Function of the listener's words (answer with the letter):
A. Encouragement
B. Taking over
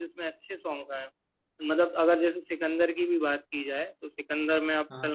A